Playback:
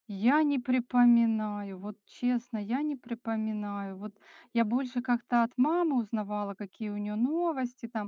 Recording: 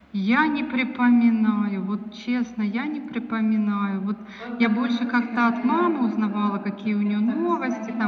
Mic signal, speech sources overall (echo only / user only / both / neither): both